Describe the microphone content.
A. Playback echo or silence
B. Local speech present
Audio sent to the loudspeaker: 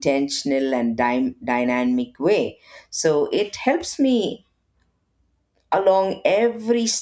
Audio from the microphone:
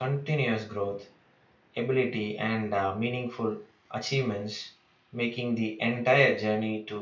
B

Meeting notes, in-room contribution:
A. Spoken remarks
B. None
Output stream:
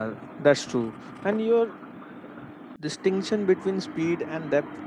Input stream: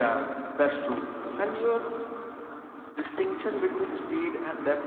B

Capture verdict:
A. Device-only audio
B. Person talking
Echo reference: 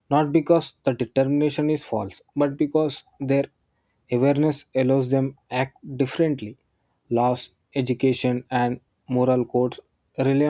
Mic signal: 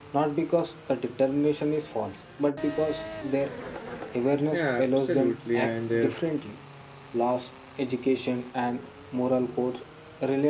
B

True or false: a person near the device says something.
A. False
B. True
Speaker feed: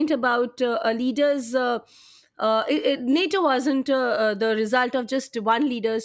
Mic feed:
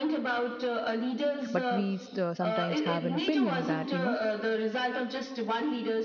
B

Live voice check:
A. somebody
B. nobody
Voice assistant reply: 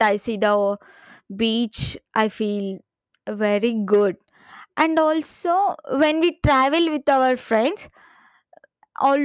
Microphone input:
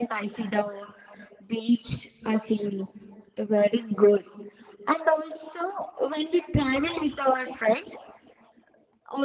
B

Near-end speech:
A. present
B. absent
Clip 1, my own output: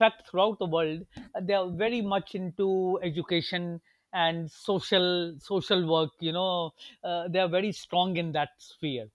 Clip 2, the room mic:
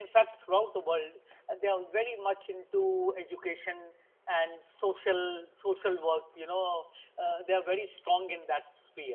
B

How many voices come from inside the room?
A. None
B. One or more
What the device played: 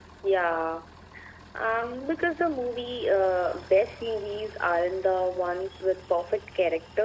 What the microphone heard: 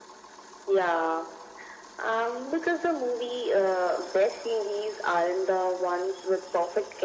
A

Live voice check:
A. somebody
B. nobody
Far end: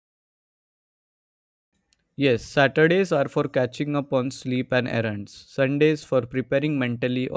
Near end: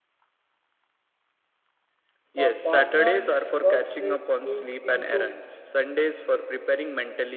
A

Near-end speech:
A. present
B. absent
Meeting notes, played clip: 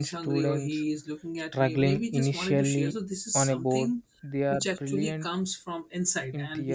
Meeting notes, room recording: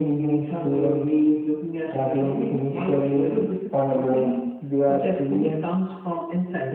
B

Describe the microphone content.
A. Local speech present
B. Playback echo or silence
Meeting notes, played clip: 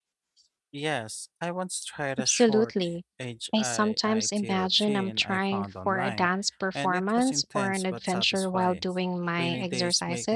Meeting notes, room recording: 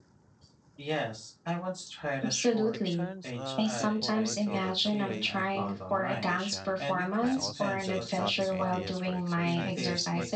A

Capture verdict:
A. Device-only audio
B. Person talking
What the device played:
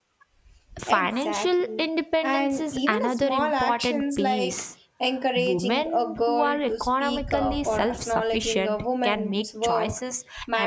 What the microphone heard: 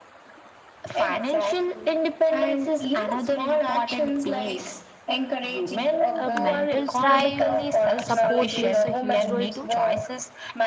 B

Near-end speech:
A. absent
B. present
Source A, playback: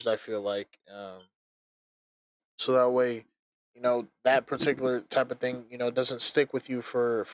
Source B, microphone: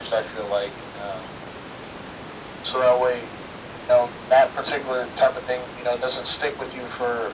A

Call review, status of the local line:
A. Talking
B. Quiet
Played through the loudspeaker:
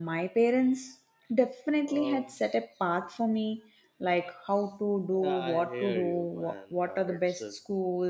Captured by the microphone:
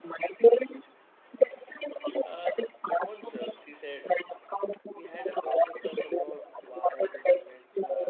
A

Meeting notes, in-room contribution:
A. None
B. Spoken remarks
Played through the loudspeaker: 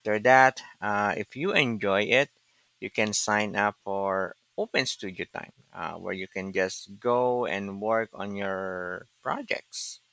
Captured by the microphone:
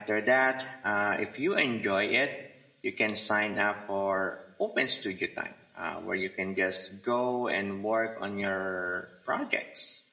A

